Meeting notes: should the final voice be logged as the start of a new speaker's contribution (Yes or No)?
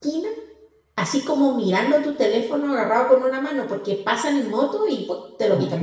Yes